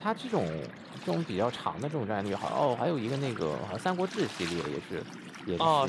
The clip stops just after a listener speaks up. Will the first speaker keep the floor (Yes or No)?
No